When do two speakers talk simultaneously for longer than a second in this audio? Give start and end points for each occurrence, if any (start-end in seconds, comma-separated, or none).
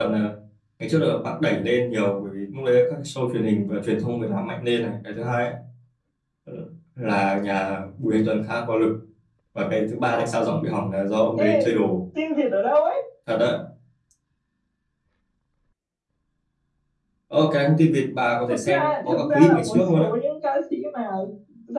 18.5-20.1